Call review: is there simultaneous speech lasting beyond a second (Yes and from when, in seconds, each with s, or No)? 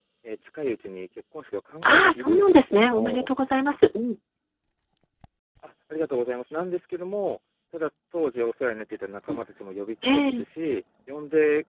Yes, from 1.8 s